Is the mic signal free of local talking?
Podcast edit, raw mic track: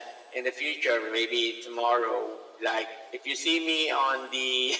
Yes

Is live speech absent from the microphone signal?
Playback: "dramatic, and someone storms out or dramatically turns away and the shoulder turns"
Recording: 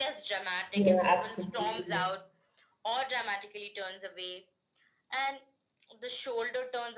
No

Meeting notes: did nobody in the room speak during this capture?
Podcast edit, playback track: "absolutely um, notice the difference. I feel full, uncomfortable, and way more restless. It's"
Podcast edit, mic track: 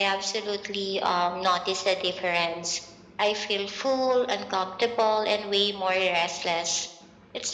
Yes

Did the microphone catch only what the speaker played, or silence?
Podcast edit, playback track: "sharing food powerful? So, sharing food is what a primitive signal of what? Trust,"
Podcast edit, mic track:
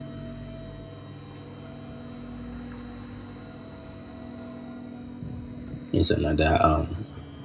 No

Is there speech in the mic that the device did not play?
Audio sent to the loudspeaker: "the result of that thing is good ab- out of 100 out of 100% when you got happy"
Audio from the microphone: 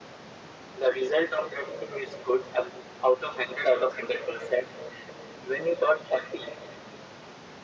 No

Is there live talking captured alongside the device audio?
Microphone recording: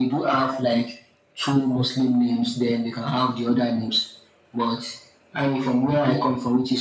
No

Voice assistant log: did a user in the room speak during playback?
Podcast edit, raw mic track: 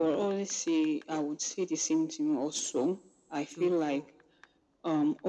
Yes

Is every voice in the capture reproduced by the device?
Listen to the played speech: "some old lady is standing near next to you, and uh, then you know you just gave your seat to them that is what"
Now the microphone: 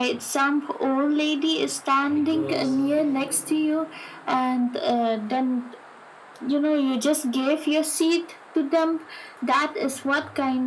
No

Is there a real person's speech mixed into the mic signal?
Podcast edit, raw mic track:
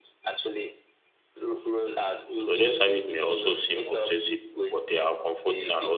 Yes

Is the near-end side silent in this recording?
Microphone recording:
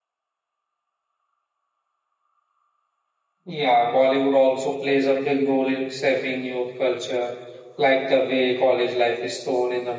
No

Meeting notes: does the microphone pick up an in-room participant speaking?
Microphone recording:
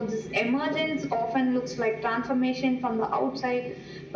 No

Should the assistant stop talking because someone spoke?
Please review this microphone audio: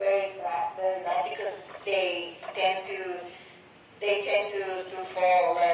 No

